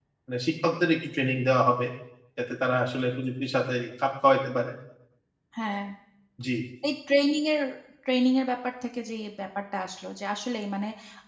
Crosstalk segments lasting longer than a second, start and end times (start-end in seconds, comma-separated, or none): none